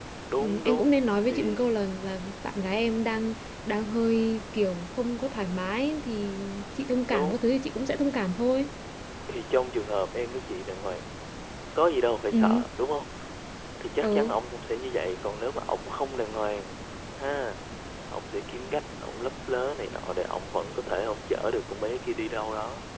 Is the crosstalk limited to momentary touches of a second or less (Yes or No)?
No